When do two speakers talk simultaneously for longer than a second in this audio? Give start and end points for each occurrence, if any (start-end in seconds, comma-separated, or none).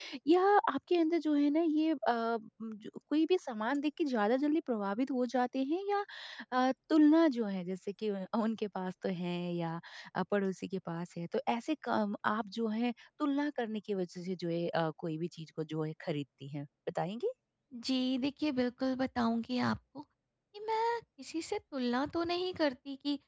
none